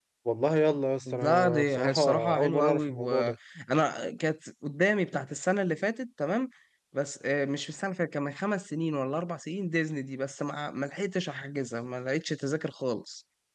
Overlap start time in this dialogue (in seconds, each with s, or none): 1.1 s